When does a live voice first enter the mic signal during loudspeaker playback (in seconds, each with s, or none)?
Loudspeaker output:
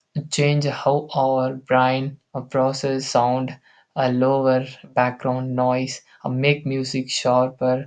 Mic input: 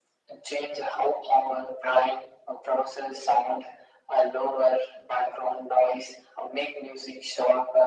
none